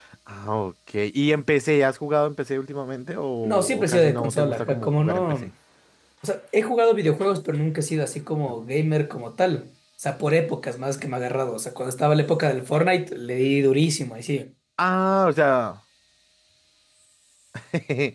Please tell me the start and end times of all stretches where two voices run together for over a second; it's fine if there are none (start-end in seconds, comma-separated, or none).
3.4-5.3